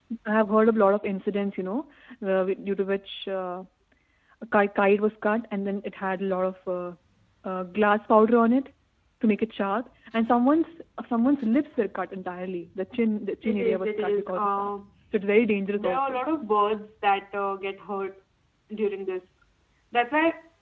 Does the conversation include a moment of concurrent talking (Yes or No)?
Yes